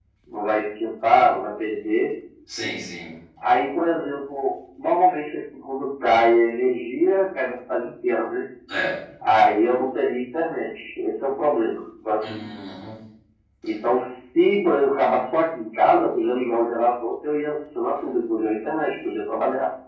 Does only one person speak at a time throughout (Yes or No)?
Yes